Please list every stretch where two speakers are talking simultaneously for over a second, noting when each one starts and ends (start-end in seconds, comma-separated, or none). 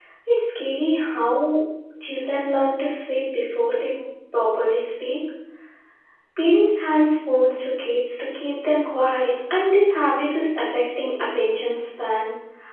none